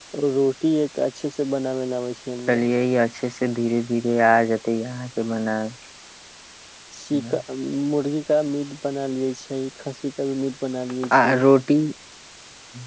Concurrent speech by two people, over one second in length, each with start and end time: none

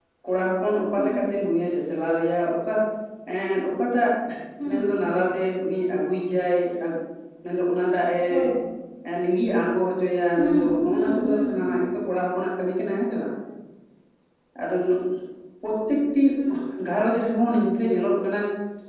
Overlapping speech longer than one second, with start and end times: 10.4-11.8

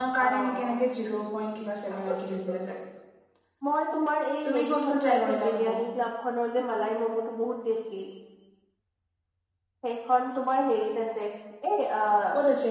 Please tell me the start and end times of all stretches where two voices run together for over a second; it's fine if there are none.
4.5-5.7

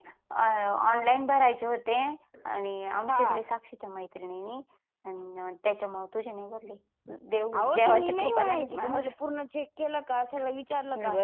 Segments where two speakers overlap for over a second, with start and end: 7.6-9.0

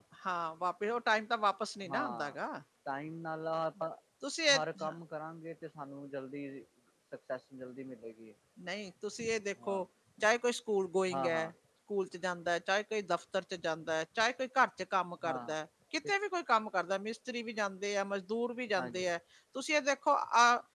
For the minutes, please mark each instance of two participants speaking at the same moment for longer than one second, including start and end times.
none

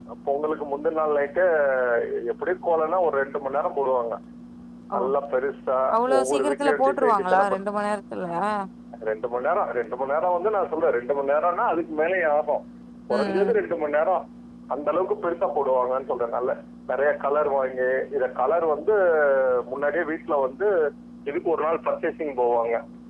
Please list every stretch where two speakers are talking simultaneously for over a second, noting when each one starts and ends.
6.2-7.6

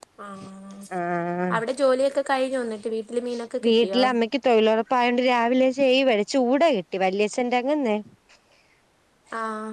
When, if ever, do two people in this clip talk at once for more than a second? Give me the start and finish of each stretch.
none

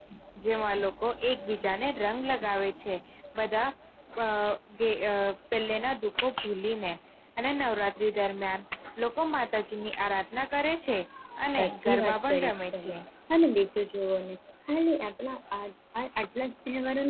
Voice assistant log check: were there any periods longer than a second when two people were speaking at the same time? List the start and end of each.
11.6-12.9

